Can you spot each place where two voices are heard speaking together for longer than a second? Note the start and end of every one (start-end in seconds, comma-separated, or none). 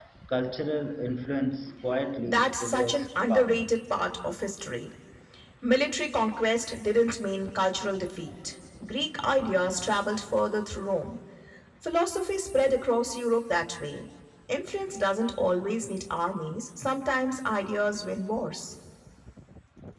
2.2-3.7